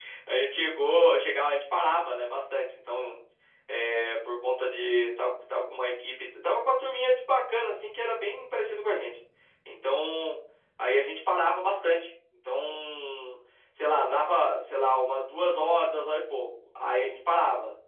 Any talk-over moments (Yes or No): No